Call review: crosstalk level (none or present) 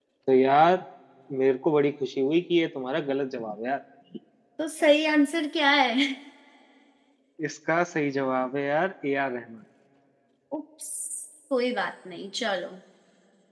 none